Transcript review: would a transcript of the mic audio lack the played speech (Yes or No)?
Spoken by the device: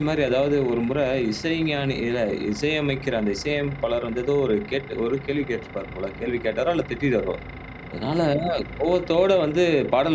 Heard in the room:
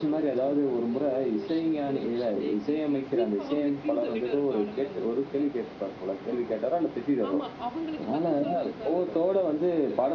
No